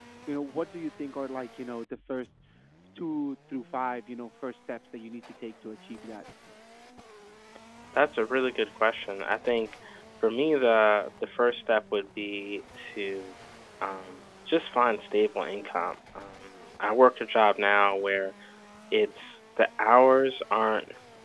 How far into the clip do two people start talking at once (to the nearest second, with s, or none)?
none